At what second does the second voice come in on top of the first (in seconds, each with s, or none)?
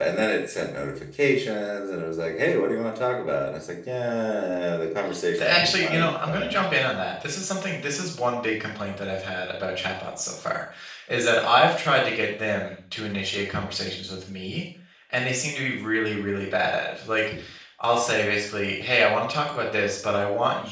5.4 s